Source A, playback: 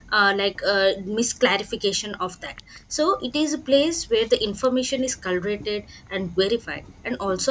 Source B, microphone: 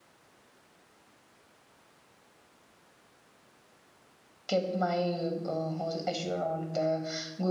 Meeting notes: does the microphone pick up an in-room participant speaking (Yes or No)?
Yes